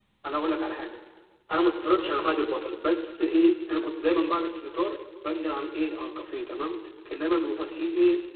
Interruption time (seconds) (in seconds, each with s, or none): none